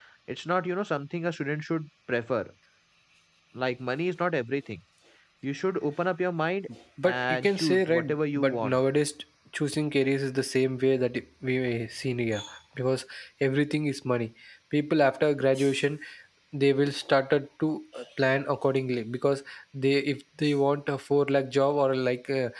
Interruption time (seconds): 7.0 s

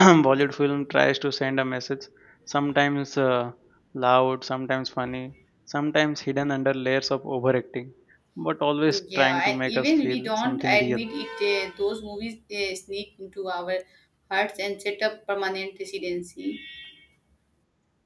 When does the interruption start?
8.8 s

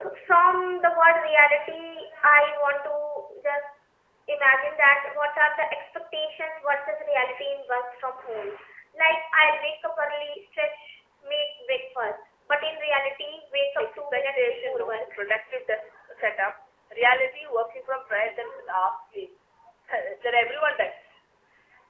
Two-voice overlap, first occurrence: 13.8 s

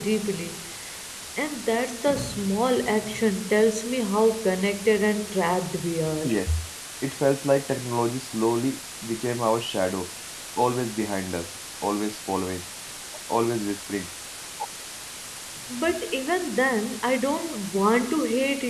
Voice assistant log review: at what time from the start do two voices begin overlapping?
none

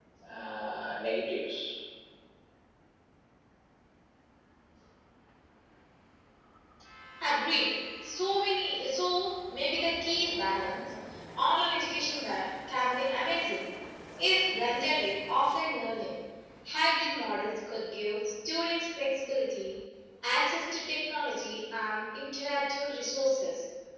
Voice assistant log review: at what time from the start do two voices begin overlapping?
none

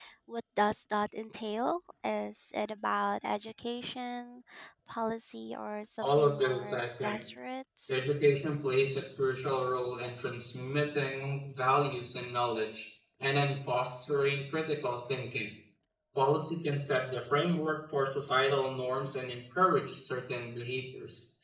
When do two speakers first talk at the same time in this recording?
6.0 s

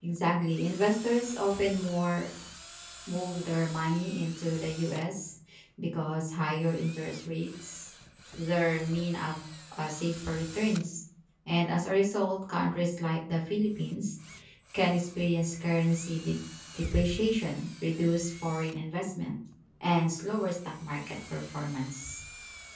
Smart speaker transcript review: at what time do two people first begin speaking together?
none

